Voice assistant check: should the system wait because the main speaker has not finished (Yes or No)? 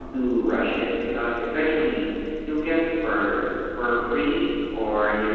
Yes